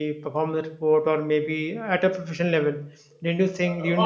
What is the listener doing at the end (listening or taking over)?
taking over